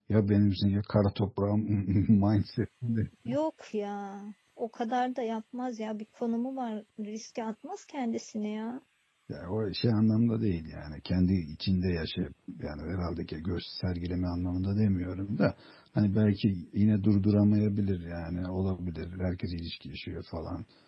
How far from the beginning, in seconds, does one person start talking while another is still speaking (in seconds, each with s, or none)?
none